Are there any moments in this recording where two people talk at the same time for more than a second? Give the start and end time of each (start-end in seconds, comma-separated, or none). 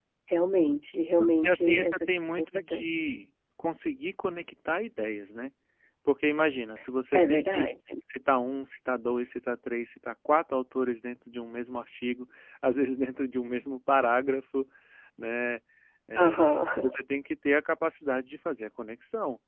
1.2-2.8